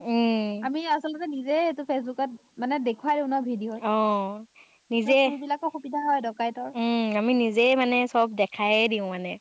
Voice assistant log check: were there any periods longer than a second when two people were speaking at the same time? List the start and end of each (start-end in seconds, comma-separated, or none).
none